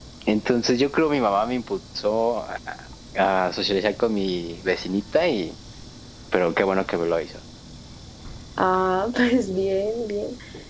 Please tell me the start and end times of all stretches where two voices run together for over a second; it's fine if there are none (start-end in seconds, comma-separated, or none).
none